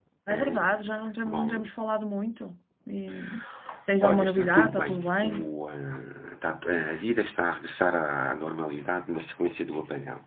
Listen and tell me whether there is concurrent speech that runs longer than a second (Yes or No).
Yes